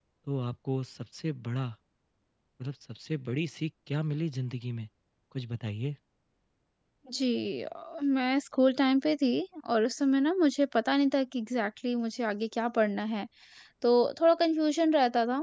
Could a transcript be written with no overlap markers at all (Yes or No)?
Yes